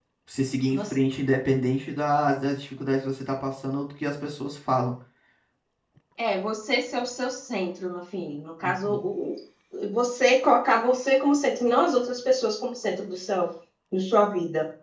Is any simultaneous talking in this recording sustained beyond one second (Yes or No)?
No